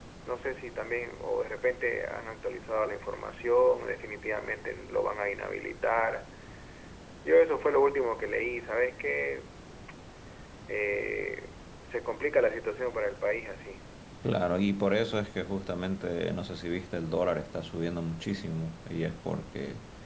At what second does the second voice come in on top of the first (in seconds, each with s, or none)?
none